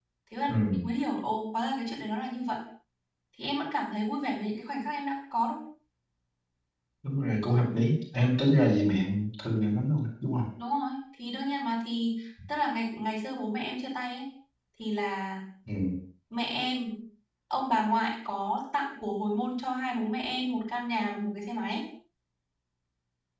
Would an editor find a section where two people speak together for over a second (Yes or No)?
No